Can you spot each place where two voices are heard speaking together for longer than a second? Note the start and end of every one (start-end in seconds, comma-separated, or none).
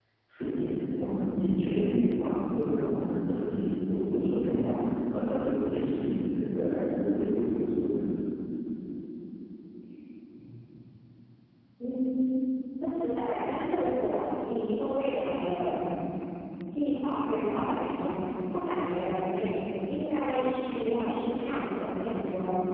none